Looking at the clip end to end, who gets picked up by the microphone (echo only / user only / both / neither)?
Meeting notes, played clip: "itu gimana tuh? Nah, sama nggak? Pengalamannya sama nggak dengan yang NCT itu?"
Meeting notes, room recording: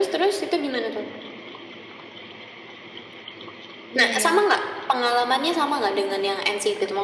both